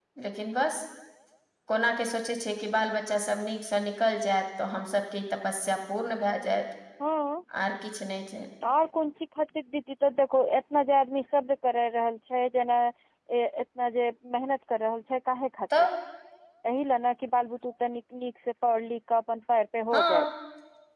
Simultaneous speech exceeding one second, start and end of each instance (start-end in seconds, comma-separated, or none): none